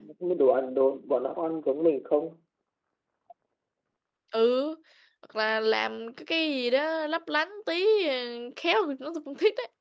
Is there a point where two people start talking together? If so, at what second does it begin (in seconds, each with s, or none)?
none